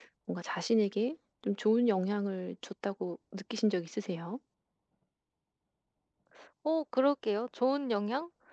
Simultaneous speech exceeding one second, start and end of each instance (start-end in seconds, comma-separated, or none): none